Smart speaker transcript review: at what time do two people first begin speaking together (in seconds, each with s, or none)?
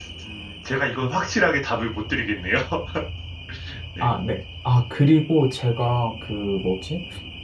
none